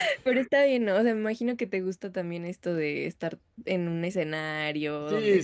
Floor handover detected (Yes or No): Yes